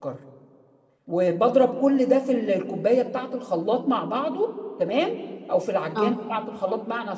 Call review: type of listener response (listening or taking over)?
listening